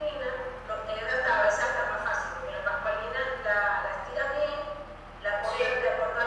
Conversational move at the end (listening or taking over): listening